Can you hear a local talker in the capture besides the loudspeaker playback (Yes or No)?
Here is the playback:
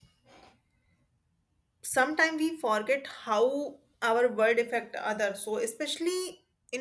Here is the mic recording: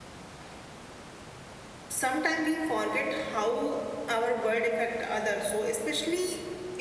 No